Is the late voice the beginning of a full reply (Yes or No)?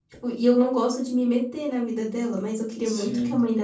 No